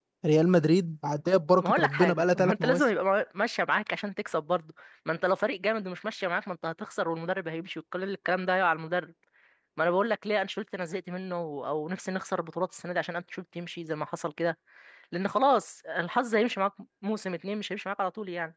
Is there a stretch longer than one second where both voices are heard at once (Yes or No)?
Yes